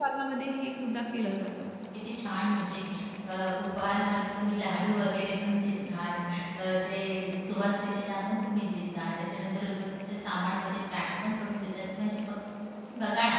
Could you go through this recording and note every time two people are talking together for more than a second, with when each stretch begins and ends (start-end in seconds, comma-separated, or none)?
none